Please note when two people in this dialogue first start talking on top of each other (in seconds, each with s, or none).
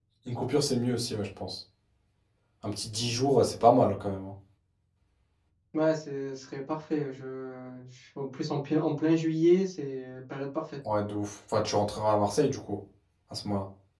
none